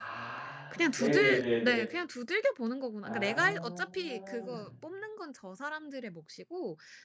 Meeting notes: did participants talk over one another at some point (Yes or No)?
Yes